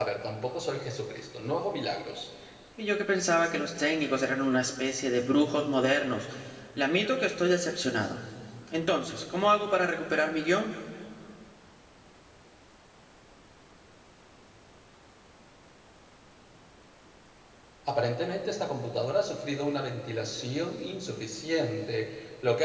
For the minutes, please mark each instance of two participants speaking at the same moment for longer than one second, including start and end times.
none

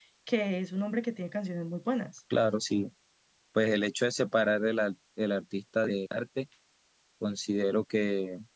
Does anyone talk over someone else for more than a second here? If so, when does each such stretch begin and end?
none

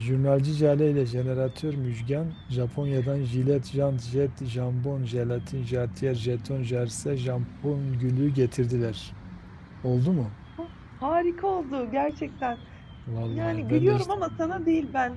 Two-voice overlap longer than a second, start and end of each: 13.3-14.7

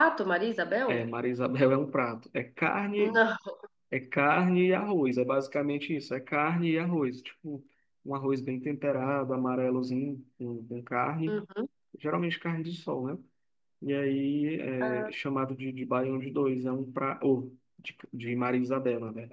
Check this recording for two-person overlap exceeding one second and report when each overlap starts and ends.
none

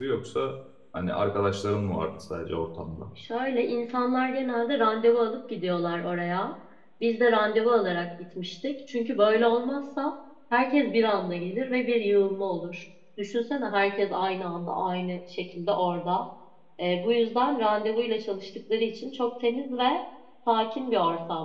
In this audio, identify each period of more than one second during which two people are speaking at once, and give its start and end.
none

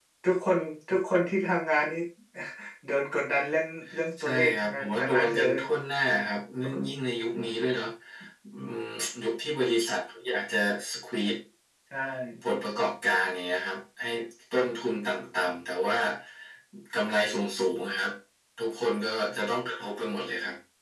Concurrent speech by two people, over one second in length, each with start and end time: 4.2-5.6

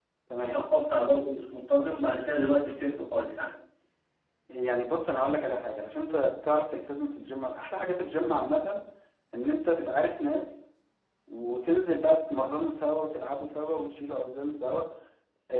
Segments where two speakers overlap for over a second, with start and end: none

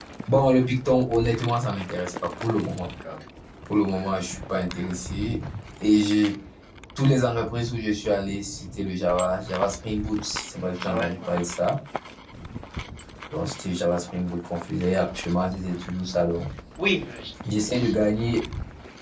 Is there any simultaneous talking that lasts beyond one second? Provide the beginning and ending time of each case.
none

